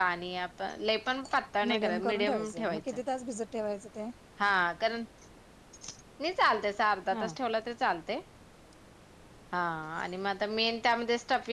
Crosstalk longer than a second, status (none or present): present